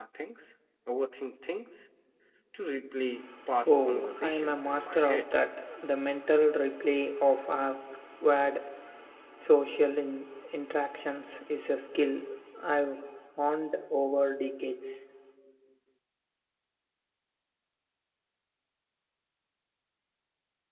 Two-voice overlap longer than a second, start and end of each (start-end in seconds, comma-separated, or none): 3.7-5.3